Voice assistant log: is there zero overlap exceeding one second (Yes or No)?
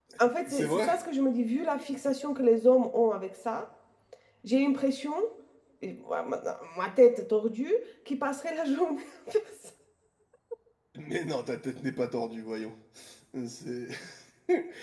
Yes